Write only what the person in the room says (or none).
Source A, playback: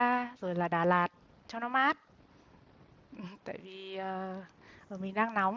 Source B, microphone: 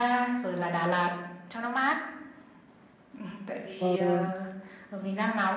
ừ.